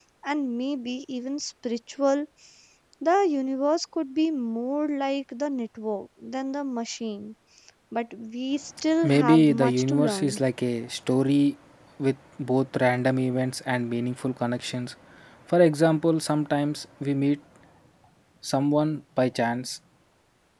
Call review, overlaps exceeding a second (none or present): present